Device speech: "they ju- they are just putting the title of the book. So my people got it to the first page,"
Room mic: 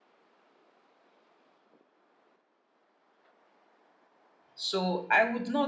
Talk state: user only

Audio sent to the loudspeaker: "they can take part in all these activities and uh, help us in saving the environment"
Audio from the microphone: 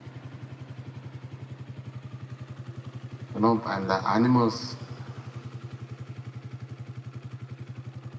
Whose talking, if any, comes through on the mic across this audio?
user only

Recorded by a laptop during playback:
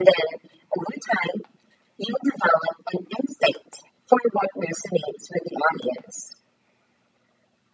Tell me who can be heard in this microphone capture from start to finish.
echo only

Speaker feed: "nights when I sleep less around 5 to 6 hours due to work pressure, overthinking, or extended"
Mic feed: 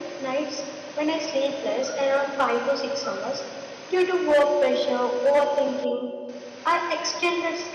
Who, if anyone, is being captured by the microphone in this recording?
echo only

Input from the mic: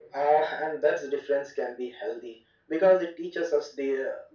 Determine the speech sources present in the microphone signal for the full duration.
echo only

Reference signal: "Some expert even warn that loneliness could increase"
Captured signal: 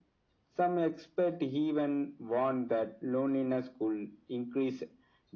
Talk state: echo only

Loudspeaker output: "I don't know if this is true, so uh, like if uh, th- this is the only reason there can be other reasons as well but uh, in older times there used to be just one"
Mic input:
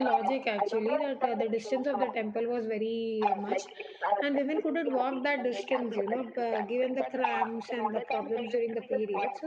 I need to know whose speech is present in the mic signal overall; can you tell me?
both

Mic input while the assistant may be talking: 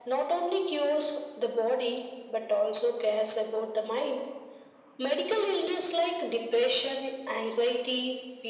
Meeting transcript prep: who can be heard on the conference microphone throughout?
echo only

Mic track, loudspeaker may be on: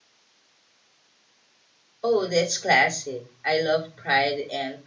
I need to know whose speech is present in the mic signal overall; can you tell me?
user only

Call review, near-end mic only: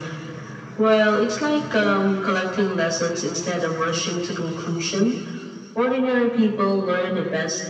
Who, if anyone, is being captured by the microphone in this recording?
echo only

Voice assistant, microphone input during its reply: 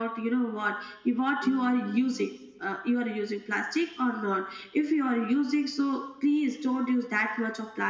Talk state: echo only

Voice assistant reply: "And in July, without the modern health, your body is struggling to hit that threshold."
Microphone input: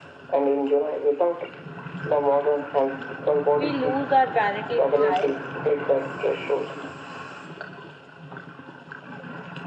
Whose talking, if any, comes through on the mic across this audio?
both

